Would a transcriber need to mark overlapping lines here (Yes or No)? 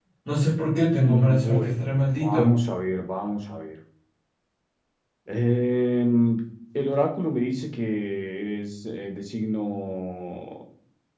Yes